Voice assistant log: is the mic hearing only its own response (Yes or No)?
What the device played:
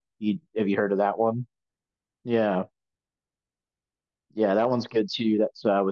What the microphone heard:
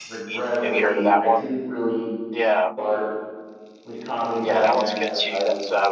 No